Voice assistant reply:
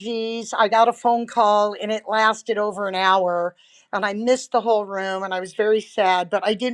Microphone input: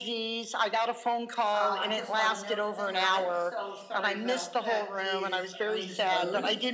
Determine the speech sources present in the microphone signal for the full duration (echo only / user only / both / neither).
both